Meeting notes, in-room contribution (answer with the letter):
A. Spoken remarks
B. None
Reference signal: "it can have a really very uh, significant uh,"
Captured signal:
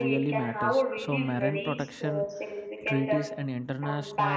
A